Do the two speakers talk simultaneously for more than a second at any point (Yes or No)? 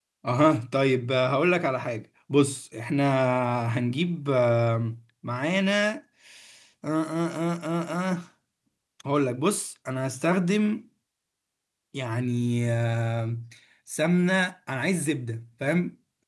No